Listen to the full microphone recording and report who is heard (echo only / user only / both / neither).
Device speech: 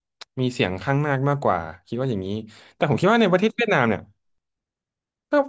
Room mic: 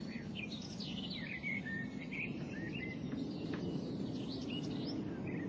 neither